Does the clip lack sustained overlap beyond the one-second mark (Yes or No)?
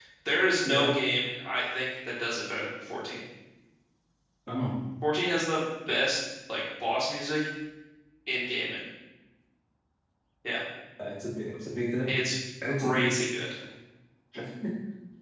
Yes